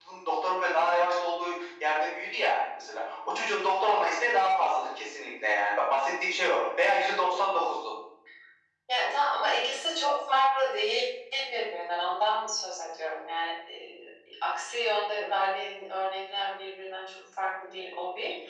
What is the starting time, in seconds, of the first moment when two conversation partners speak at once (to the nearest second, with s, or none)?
none